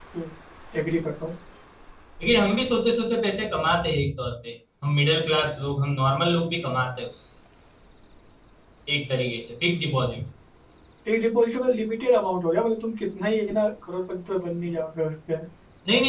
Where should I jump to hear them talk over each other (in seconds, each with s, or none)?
none